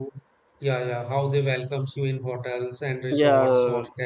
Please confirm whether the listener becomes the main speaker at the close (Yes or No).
No